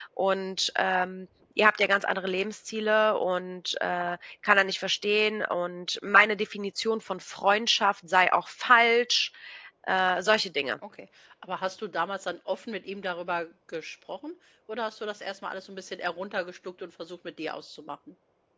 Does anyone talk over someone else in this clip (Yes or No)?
No